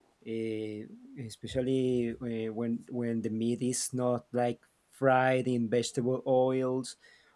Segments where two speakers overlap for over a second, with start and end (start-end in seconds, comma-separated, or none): none